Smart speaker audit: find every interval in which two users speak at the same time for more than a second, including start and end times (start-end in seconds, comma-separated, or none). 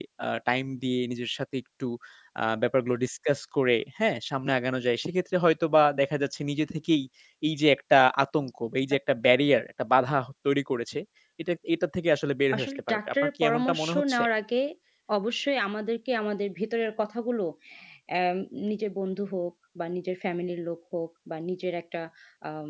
12.5-14.2